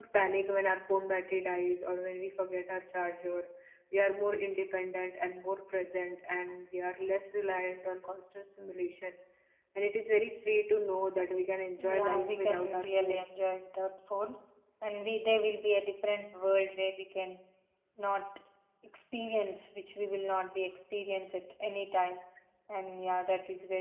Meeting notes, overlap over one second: present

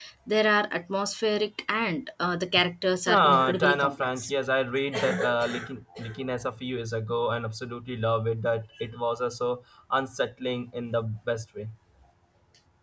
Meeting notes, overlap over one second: present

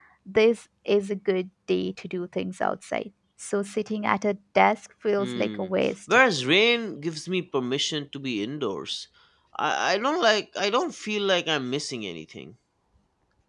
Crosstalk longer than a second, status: none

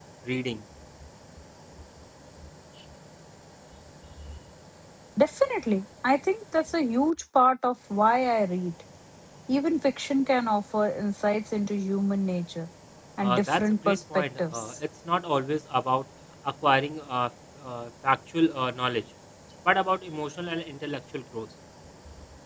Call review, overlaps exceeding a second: present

